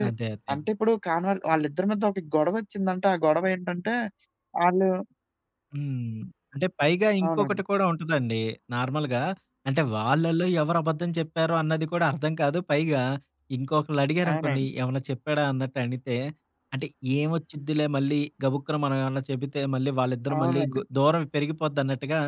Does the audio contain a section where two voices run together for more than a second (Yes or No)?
No